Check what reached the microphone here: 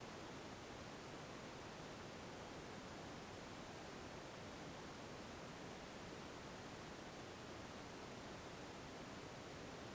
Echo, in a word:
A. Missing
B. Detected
A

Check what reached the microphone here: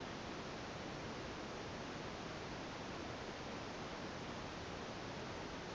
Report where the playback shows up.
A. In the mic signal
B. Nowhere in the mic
B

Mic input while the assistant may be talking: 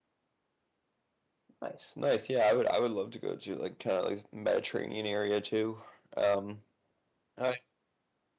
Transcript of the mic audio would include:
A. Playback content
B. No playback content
B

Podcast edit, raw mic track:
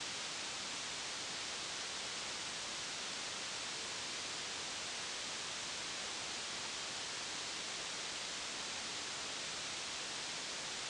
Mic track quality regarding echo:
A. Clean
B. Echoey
A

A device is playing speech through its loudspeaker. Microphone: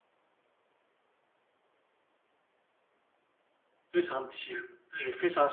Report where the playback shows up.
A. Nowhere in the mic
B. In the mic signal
A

